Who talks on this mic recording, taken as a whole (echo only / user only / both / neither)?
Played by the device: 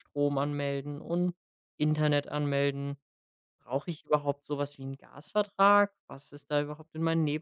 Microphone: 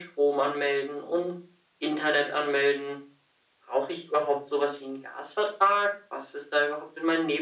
echo only